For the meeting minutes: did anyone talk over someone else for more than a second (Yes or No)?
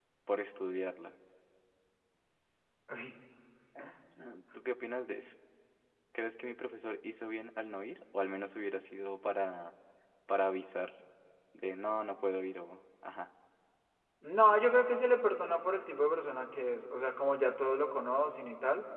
No